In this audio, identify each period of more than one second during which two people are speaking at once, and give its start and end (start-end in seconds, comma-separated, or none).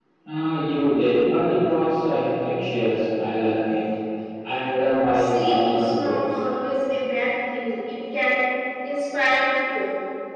5.1-6.4